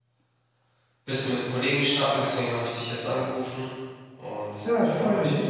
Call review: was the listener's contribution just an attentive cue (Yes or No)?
No